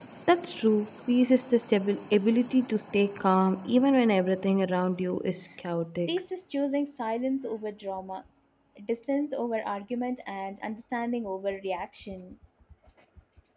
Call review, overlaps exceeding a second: none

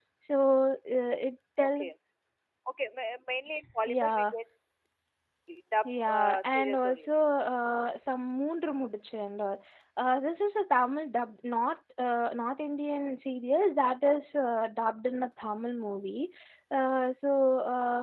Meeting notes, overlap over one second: present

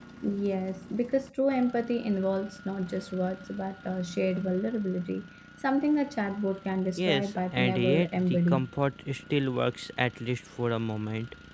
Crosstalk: present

